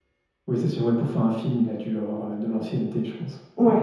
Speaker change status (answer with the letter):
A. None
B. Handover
B